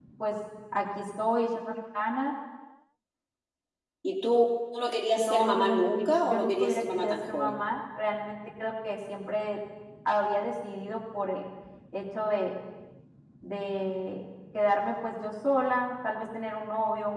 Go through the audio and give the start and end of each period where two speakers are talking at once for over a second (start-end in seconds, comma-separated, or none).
5.2-7.6